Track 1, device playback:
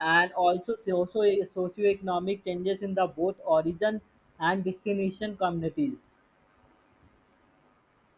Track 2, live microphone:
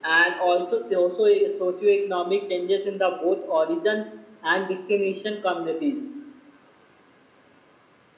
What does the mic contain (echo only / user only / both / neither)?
echo only